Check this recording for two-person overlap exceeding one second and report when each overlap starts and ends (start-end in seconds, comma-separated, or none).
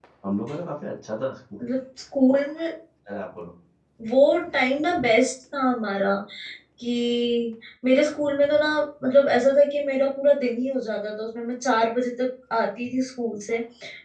none